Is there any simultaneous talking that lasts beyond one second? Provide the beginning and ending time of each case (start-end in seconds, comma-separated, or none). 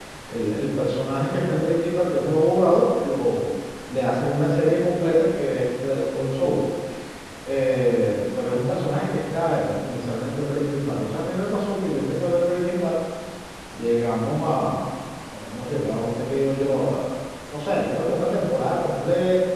none